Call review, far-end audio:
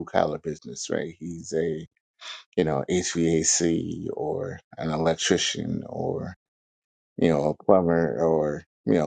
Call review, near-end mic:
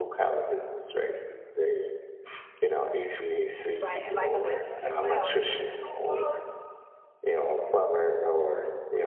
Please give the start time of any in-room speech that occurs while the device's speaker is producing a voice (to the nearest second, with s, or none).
4 s